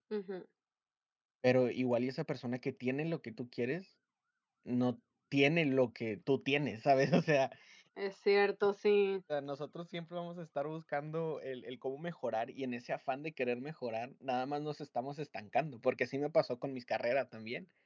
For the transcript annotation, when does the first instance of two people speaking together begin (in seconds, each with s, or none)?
none